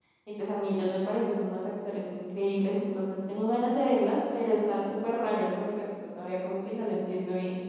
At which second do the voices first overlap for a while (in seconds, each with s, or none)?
none